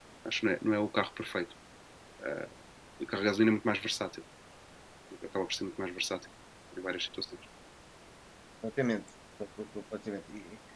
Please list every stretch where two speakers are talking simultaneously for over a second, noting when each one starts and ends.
none

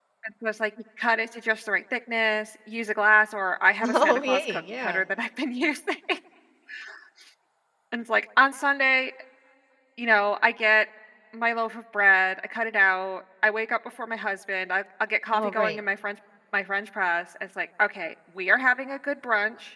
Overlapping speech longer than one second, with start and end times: 3.8-5.0

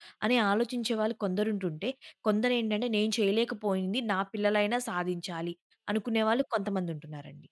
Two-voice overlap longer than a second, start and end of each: none

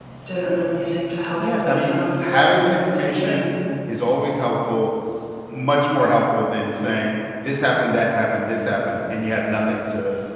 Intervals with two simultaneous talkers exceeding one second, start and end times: 1.4-3.5

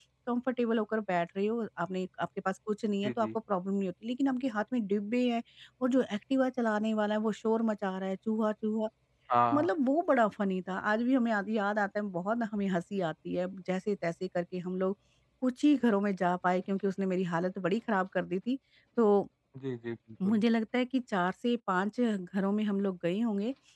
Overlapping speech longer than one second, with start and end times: none

